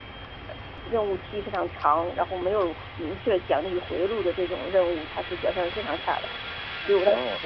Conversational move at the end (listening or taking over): listening